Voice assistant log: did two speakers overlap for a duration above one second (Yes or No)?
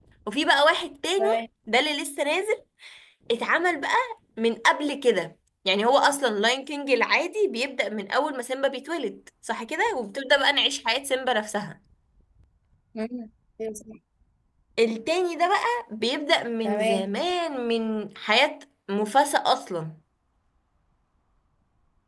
No